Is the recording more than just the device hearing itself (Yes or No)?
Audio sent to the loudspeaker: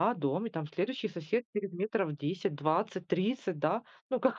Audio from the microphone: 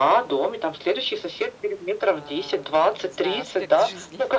Yes